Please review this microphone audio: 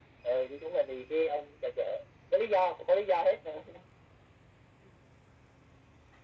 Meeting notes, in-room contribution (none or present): none